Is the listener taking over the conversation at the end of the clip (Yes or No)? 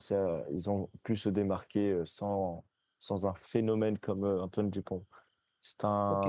Yes